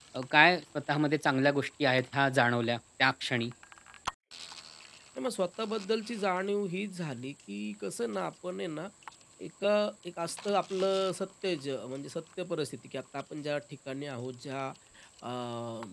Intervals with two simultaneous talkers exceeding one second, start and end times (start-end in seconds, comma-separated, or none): none